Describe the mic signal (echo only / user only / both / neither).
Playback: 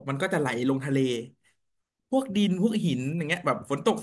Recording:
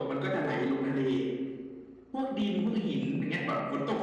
echo only